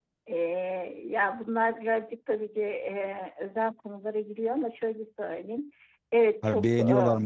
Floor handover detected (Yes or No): Yes